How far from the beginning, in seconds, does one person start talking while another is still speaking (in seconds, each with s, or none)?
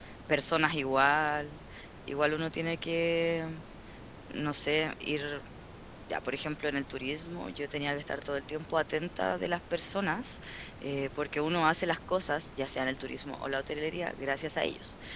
none